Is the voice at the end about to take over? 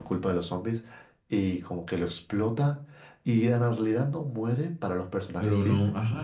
Yes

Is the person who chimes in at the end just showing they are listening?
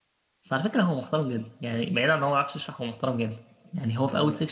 Yes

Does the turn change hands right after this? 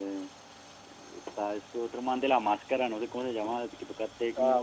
Yes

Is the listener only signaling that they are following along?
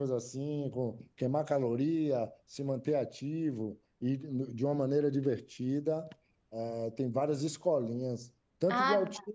No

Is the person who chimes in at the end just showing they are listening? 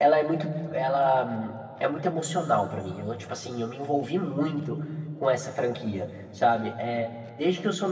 Yes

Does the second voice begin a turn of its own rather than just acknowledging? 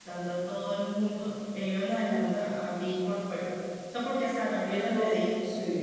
Yes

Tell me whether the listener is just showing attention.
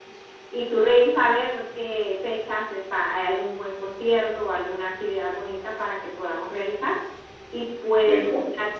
Yes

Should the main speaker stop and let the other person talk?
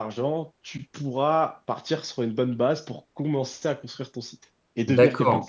Yes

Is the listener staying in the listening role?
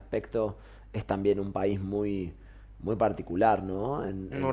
Yes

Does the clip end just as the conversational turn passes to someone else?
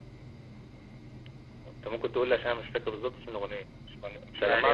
Yes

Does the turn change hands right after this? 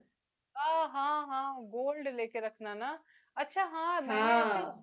No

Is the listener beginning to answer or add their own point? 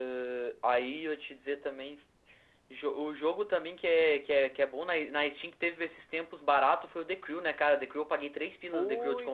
Yes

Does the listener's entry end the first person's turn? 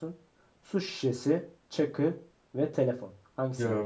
Yes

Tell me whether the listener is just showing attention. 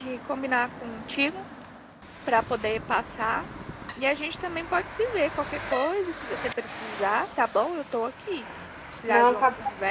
Yes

